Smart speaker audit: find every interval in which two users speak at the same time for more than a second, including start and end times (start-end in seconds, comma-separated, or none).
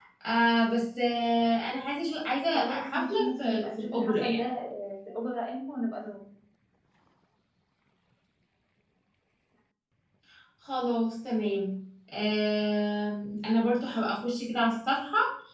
2.5-4.4